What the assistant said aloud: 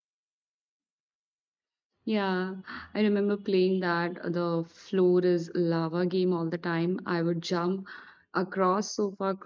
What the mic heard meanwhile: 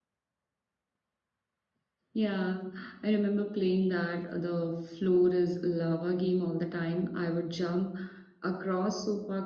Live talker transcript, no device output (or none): none